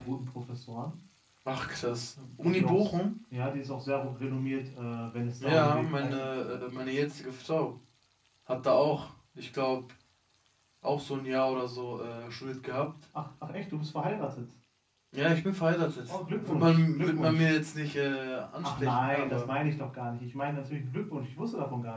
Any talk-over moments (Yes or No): Yes